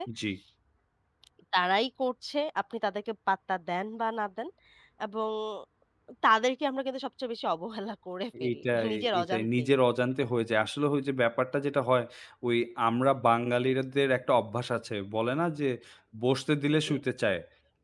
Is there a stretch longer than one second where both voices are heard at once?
Yes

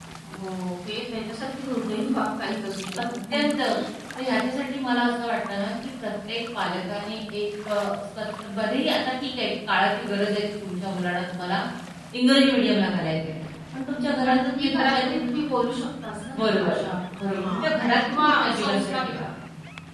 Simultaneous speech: Yes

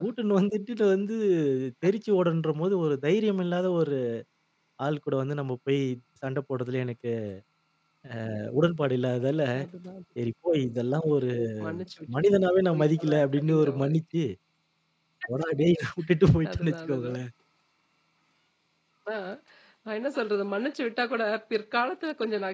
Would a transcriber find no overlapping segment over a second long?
No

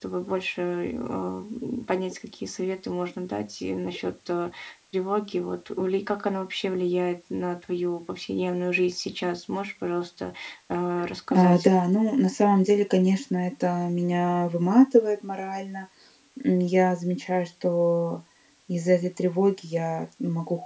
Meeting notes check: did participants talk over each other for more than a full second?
No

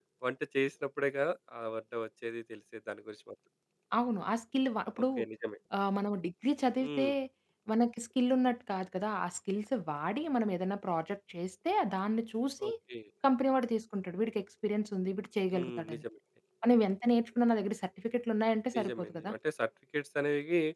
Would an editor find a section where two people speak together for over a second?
No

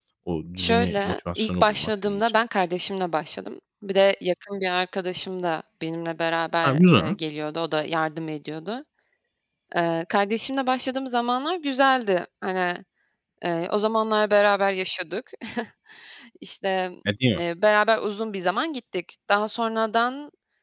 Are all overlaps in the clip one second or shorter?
No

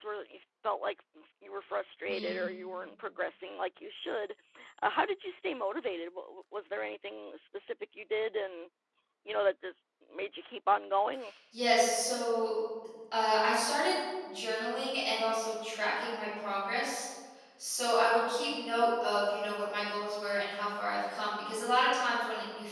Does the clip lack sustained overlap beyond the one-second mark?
Yes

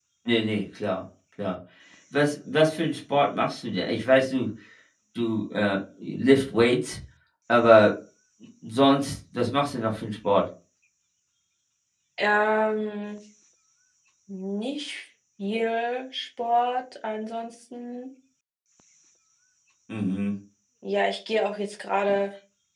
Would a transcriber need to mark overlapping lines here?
No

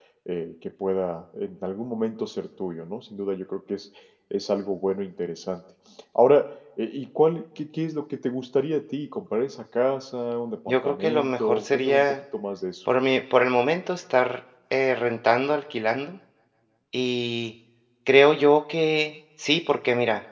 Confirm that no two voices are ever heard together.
No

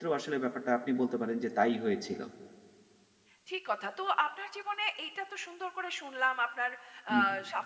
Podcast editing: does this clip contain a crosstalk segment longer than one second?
No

